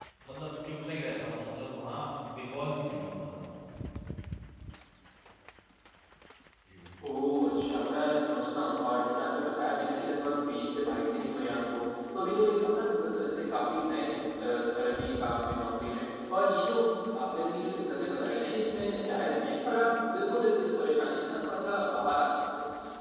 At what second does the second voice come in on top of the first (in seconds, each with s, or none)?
none